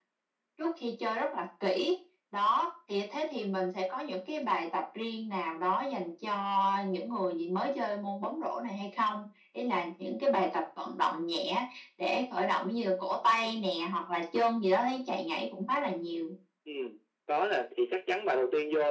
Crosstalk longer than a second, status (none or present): none